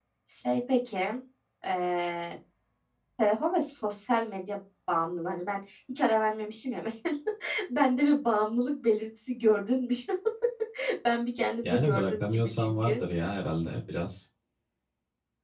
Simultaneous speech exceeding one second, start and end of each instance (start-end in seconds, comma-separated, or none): 11.6-13.0